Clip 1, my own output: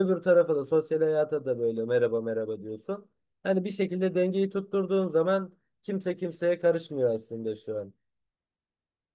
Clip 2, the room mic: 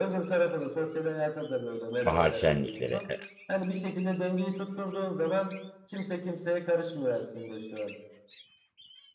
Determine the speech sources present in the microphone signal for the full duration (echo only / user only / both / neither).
both